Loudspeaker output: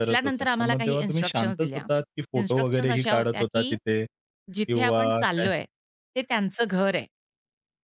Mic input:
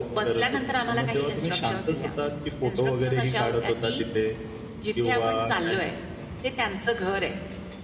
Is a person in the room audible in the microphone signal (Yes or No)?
No